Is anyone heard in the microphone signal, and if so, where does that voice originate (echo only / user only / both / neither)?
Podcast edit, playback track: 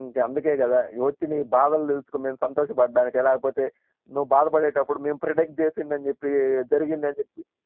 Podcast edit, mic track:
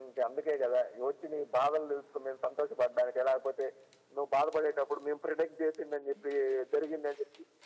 echo only